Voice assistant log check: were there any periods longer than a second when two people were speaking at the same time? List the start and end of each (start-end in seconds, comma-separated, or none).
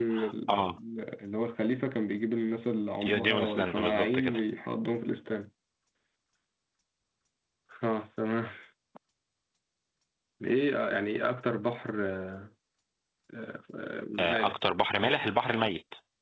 3.0-4.4